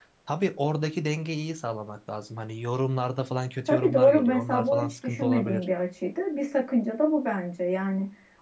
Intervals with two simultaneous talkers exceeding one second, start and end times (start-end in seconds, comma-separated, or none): 3.7-5.6